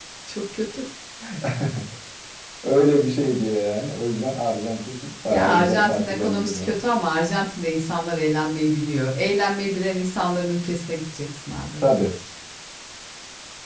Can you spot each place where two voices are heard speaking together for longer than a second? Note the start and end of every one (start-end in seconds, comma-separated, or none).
5.3-6.7